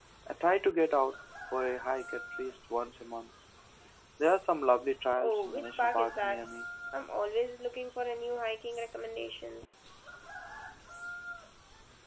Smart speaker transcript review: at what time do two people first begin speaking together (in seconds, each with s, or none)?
5.2 s